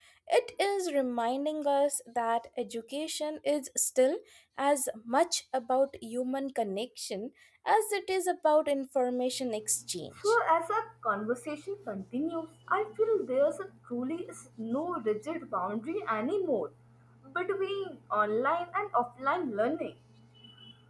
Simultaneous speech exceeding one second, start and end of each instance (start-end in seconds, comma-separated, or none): none